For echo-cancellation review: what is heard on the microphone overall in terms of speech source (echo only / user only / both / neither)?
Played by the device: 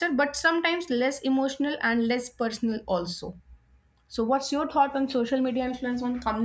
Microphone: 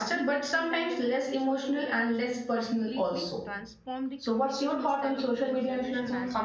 both